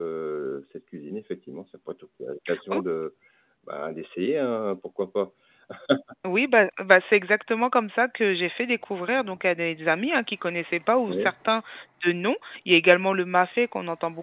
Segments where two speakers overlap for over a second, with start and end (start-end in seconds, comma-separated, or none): none